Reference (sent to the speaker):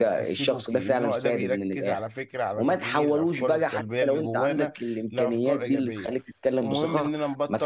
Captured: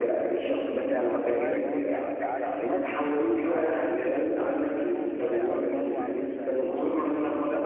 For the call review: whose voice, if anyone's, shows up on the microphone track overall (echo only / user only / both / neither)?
both